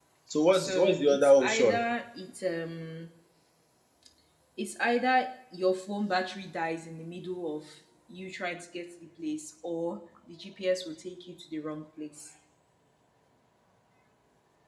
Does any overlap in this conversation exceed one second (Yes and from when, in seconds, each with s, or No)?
Yes, from 0.5 s